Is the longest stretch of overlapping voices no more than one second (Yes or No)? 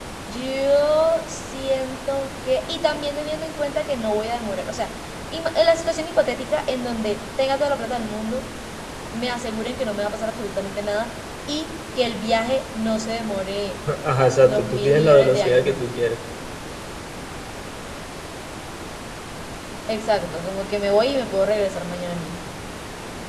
No